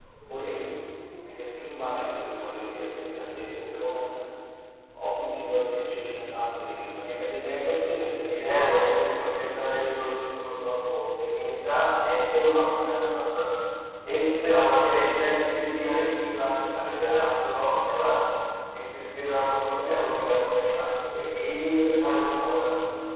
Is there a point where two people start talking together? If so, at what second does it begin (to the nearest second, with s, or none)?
8 s